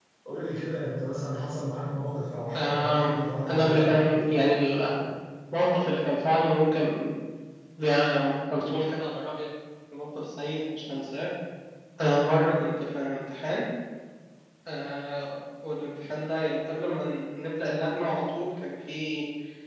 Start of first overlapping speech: 2.5 s

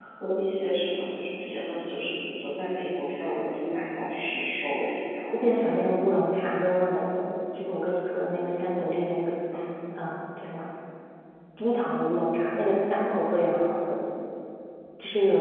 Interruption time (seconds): none

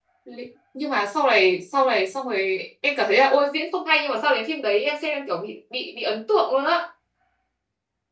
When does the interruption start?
none

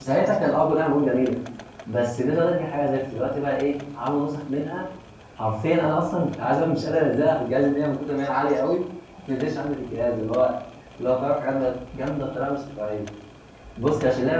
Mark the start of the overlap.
none

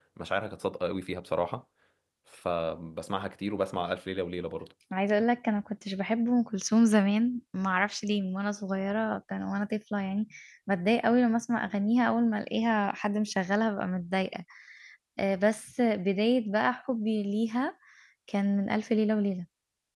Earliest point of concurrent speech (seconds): none

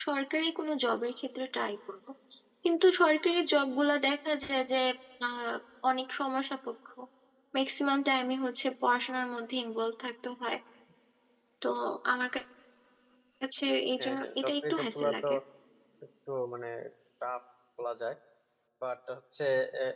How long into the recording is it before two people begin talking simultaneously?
14.0 s

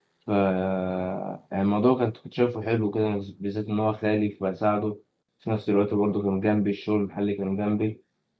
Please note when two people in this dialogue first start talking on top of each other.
none

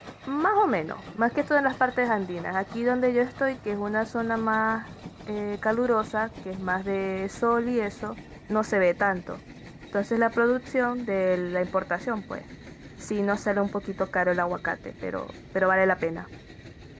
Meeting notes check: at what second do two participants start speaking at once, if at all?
none

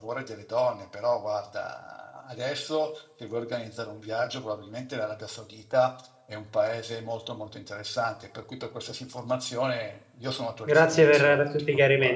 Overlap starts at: 10.7 s

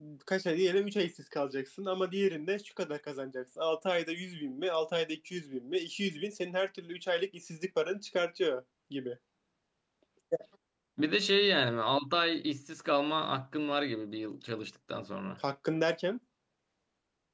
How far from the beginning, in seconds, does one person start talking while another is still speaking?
none

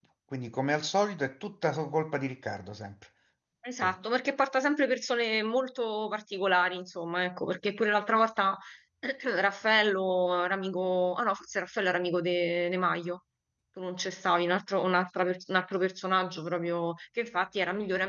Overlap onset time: none

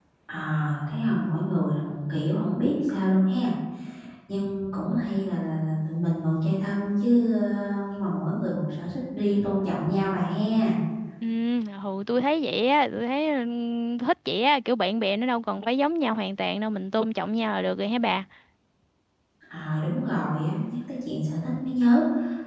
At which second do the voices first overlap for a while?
none

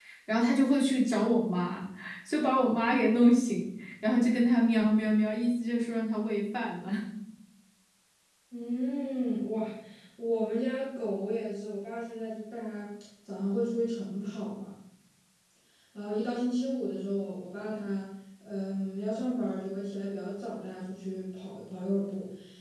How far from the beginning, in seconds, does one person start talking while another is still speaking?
none

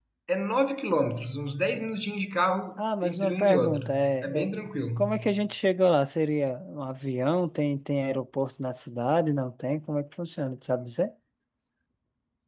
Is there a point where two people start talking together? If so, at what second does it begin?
2.8 s

